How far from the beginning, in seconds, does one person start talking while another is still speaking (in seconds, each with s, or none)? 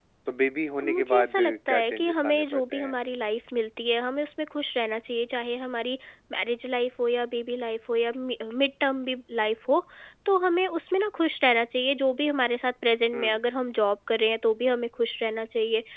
0.9 s